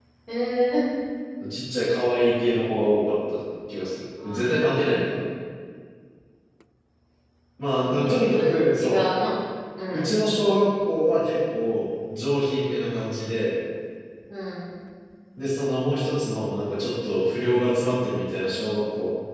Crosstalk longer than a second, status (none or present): present